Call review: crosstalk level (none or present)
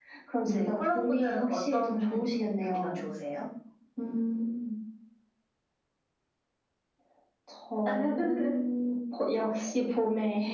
present